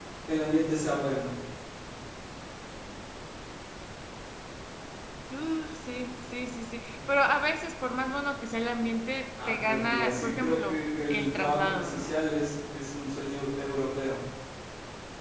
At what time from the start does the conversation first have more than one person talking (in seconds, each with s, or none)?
9.4 s